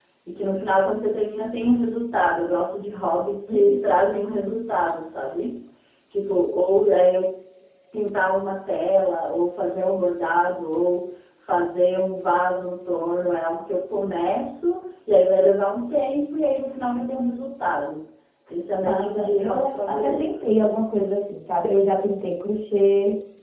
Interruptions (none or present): present